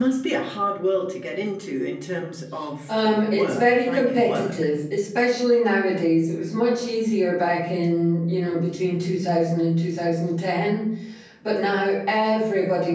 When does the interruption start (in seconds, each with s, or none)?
2.9 s